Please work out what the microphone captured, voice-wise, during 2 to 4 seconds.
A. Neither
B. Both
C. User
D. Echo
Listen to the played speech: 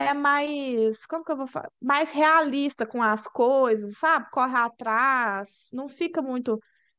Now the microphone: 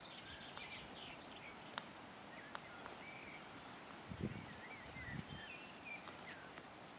A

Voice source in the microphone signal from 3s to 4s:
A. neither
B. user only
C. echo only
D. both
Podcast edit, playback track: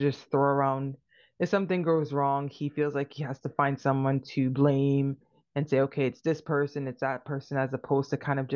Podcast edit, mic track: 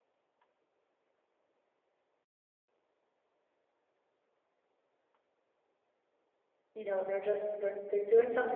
A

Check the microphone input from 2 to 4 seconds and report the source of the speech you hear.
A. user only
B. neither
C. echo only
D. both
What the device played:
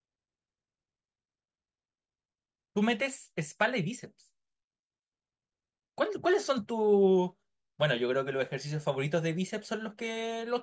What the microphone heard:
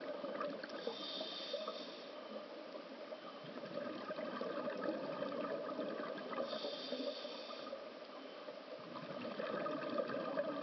B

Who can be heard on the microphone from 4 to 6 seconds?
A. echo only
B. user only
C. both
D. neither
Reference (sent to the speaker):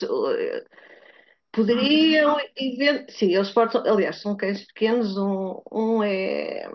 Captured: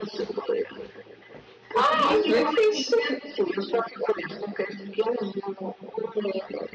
A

